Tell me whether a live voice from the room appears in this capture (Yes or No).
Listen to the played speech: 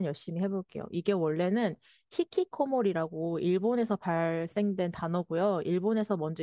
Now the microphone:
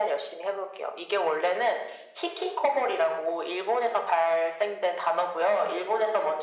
No